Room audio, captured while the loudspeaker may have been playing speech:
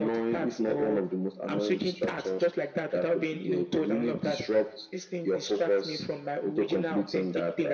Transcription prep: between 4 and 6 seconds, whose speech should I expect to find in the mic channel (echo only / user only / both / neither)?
echo only